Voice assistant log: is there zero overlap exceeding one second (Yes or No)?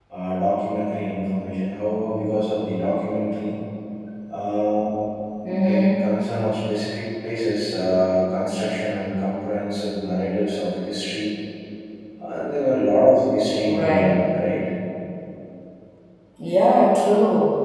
Yes